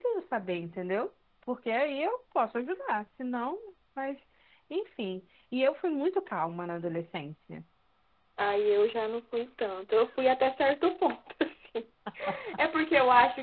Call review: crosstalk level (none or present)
none